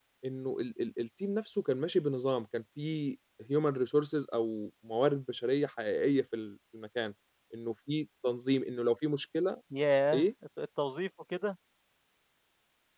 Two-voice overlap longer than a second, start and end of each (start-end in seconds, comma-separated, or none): none